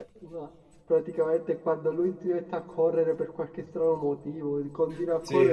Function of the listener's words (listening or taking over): listening